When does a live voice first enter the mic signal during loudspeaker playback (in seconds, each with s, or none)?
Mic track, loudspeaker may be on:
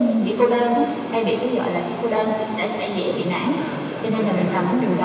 3.0 s